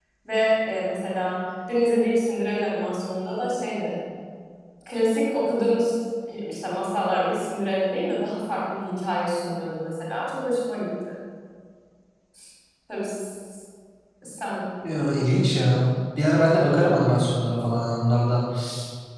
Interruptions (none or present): none